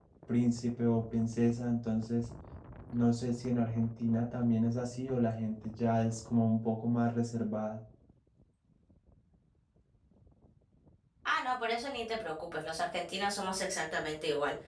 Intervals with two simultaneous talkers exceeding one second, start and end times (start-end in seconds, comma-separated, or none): none